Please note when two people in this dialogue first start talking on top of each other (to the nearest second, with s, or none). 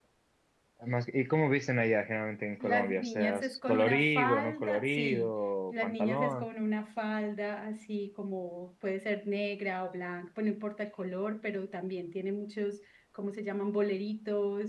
3 s